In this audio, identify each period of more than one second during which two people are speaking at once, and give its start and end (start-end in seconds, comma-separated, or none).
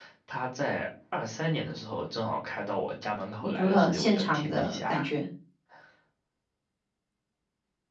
3.4-5.1